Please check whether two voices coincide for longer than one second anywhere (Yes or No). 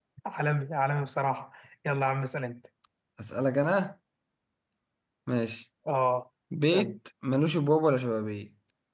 No